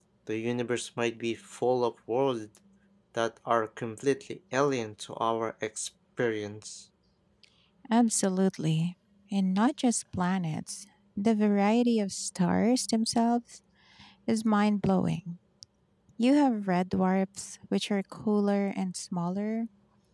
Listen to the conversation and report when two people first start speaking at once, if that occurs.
none

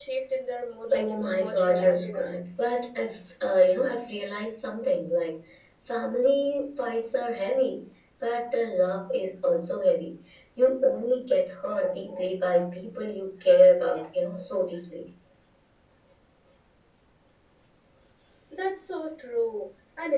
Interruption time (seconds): 0.9 s

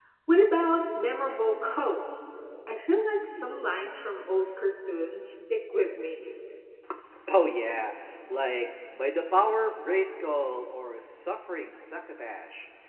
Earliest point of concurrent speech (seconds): none

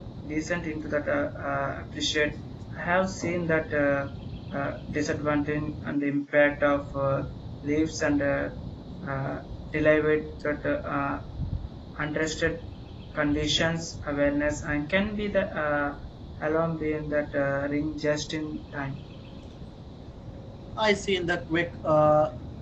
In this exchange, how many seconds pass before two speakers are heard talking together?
none

